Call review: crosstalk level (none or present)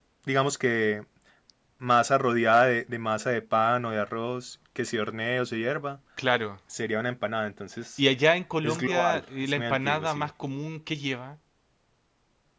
present